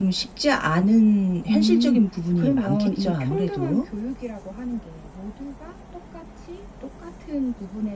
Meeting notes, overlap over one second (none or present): present